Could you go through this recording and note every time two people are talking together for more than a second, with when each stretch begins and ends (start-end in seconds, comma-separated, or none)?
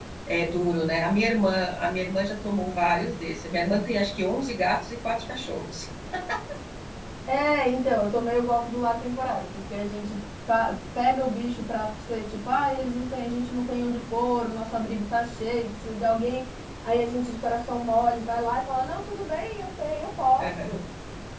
none